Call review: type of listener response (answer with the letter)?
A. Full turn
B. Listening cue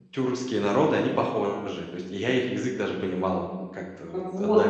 A